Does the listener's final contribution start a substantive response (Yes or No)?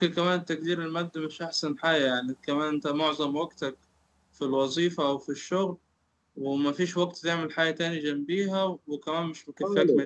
Yes